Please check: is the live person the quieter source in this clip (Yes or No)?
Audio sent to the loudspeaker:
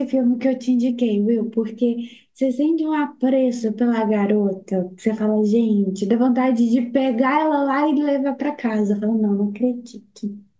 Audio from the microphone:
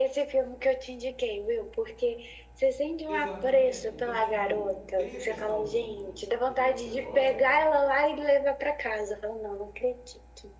Yes